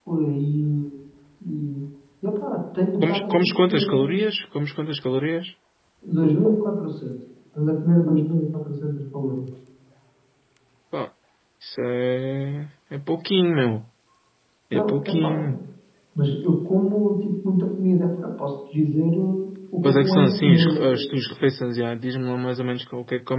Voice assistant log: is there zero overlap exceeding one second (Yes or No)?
No